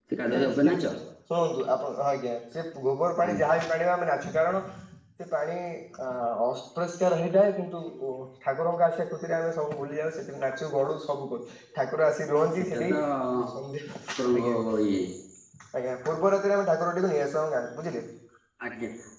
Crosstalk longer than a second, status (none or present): none